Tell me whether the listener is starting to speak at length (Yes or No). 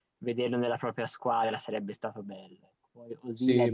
No